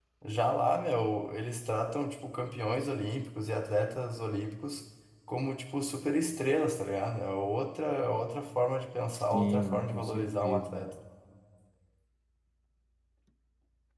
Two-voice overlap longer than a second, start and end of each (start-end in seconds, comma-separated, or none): 9.1-10.9